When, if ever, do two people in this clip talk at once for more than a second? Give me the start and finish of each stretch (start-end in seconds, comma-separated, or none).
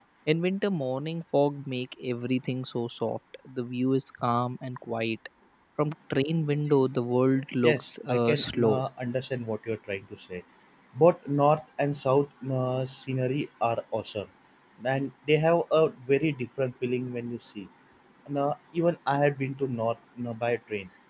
7.6-8.8